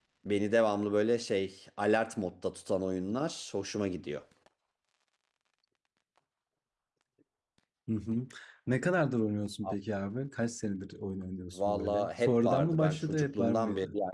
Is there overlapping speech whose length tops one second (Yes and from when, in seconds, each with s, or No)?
Yes, from 11.5 s